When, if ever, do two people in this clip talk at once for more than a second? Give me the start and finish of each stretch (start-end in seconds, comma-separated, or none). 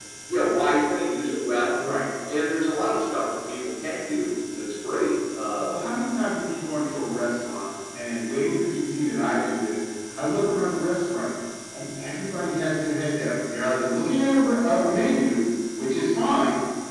none